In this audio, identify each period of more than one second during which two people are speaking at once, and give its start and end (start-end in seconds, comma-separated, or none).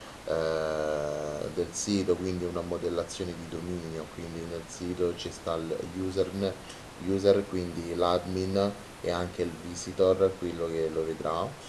none